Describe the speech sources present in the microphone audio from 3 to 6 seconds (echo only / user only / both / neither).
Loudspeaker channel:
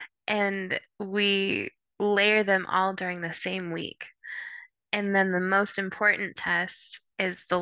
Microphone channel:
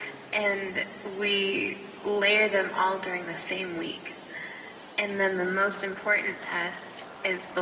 echo only